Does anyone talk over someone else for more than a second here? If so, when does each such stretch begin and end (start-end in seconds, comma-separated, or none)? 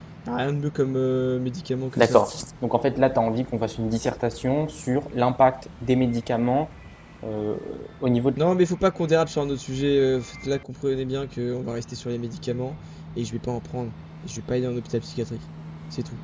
none